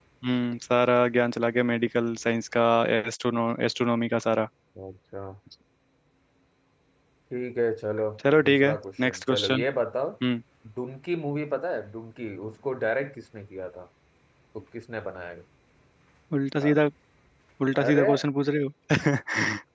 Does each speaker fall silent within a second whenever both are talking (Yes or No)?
No